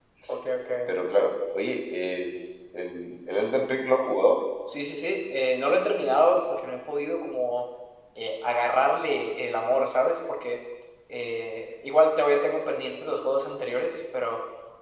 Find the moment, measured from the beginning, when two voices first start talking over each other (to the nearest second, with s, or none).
none